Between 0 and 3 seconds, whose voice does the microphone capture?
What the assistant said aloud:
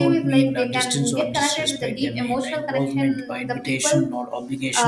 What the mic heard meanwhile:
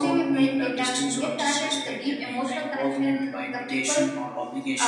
echo only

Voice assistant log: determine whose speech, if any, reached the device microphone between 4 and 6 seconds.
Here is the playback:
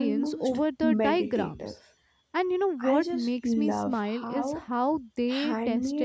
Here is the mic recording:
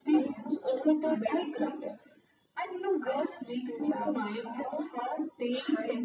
echo only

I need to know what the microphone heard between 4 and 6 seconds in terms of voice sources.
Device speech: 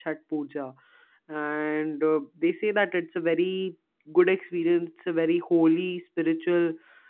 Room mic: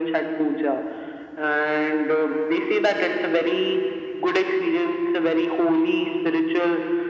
echo only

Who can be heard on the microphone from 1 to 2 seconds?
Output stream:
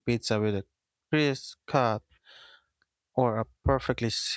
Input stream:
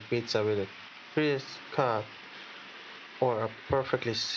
echo only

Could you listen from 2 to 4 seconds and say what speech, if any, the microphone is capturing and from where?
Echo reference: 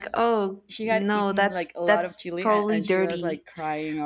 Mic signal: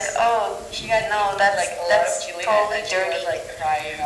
echo only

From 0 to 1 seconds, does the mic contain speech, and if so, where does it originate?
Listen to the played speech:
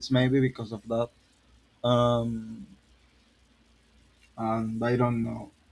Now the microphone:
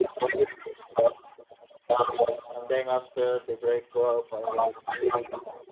echo only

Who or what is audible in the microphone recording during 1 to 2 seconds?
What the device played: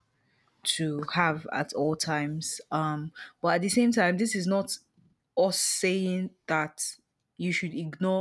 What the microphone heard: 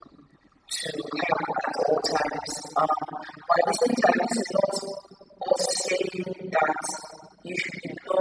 echo only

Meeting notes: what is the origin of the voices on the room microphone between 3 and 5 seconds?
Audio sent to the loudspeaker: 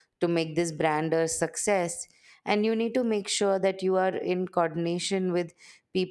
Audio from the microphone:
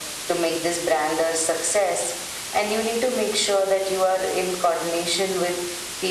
echo only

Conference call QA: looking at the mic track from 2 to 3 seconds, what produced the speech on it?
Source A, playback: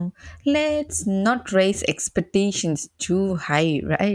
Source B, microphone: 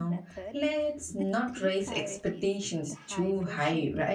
both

